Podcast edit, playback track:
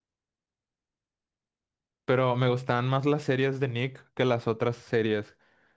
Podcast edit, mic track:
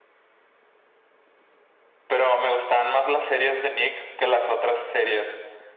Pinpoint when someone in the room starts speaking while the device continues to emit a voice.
none

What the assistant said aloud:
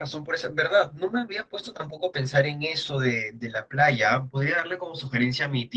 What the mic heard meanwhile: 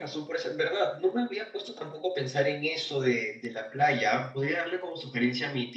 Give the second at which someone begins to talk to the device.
none

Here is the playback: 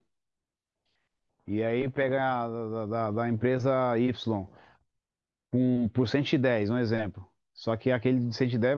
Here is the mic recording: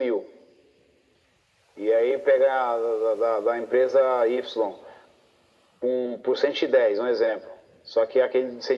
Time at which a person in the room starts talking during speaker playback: none

